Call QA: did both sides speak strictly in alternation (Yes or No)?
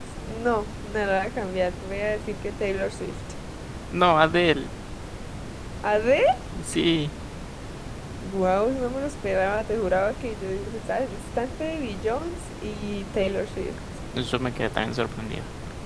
Yes